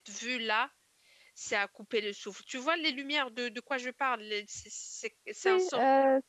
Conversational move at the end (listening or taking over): taking over